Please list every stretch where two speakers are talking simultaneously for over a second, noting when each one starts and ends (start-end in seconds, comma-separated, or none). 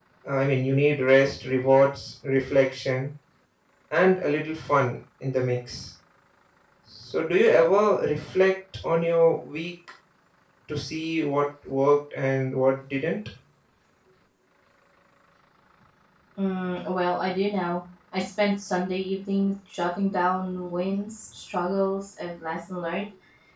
none